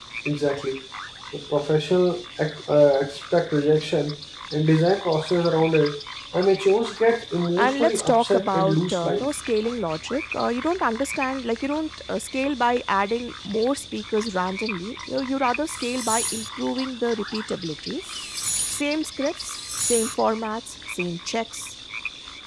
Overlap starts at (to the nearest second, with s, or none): 8 s